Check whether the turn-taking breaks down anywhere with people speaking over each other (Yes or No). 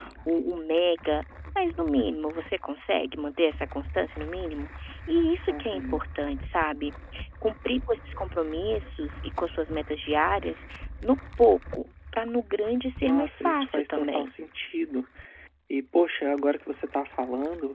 Yes